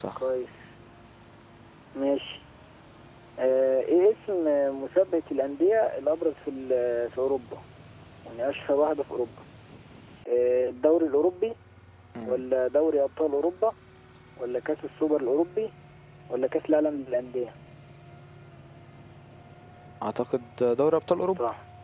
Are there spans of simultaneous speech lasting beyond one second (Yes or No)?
No